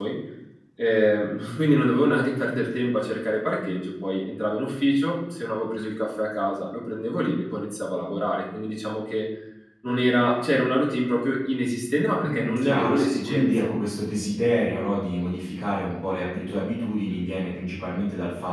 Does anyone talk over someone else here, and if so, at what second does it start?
12 s

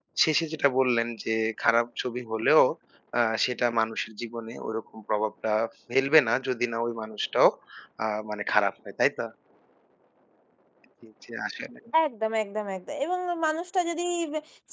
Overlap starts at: none

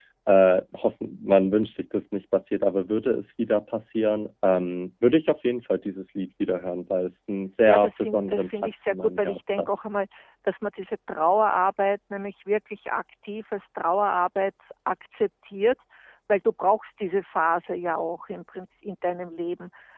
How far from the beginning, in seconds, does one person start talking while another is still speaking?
8 s

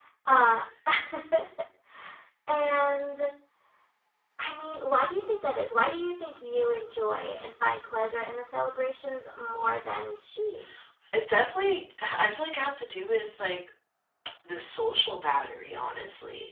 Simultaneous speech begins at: none

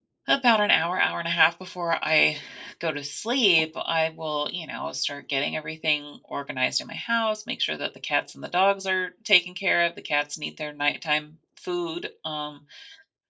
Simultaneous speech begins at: none

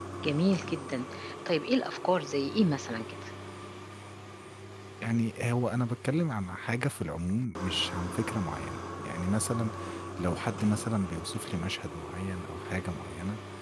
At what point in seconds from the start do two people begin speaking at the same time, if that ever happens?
none

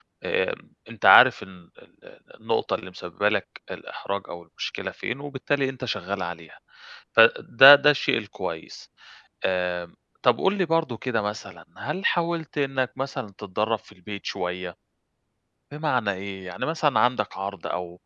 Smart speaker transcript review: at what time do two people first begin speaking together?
none

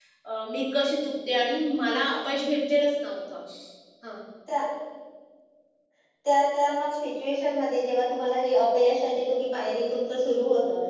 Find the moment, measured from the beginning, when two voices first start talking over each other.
none

